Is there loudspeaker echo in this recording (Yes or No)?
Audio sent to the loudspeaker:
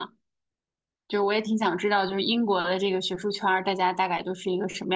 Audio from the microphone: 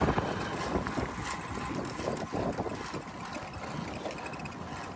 No